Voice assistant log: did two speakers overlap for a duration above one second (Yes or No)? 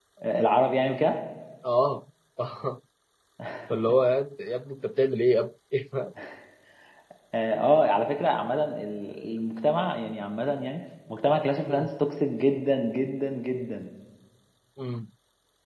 No